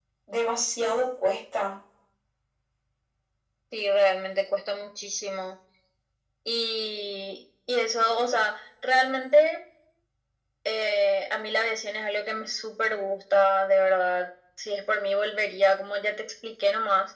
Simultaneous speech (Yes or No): No